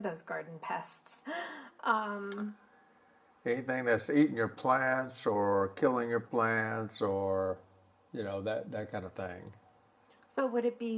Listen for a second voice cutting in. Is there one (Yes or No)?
No